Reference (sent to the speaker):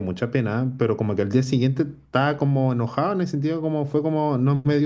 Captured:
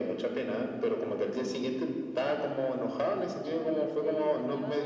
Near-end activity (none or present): present